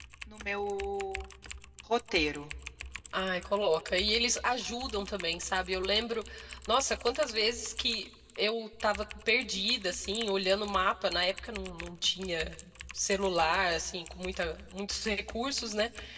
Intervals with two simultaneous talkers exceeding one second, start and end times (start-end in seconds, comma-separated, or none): none